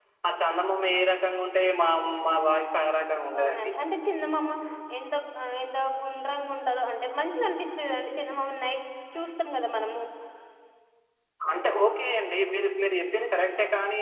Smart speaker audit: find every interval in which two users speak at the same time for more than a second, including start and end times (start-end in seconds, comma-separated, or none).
none